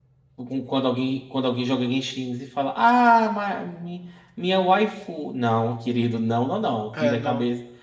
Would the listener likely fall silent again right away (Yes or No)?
Yes